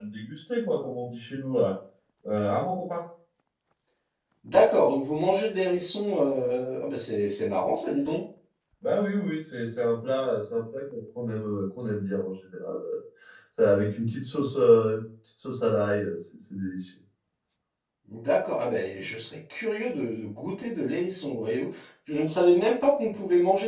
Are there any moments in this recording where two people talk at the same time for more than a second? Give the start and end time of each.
none

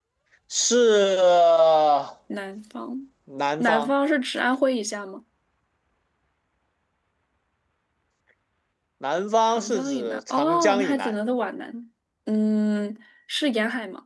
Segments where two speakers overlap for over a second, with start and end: 9.4-11.1

